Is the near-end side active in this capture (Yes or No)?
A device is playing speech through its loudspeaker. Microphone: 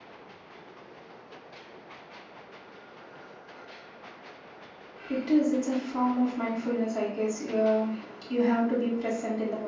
Yes